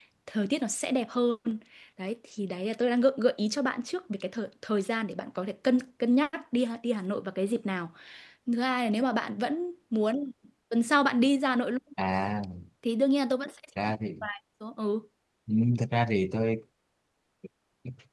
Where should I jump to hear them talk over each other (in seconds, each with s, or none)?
none